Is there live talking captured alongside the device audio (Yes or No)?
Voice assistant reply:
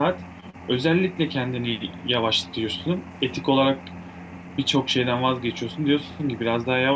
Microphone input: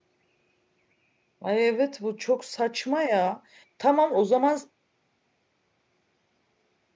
Yes